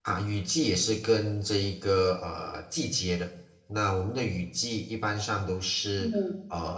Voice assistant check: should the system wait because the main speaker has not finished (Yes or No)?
Yes